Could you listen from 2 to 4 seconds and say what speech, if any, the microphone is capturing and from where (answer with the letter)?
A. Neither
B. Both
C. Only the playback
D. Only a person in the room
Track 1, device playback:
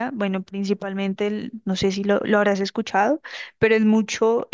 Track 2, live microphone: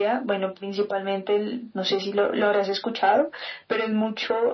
C